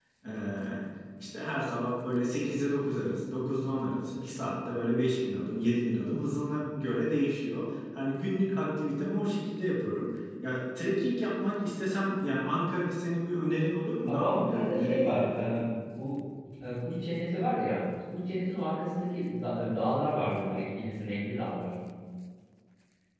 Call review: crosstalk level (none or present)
present